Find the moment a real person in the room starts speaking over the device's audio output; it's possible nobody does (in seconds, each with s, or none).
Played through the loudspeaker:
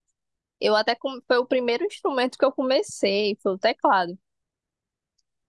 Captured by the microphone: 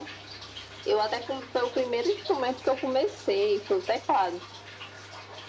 none